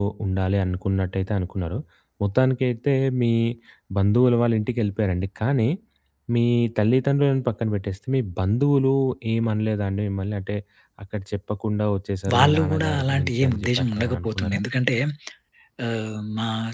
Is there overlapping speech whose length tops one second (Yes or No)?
Yes